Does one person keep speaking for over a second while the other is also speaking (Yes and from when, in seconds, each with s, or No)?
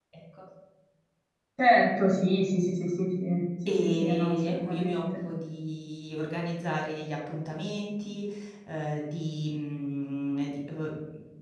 Yes, from 3.7 s